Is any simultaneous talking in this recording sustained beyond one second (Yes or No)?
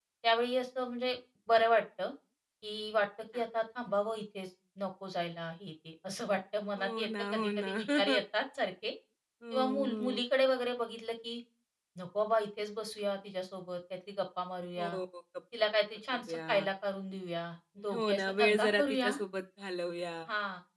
Yes